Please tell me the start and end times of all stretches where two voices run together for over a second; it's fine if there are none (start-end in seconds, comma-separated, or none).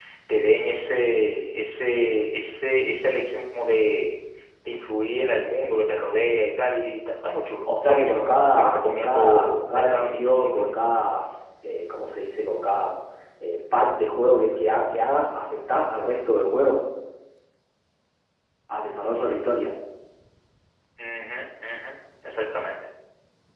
7.9-10.7